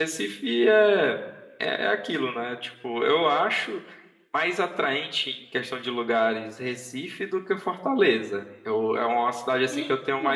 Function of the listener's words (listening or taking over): listening